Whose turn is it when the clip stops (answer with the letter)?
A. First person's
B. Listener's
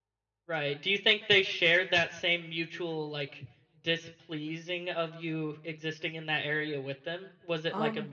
A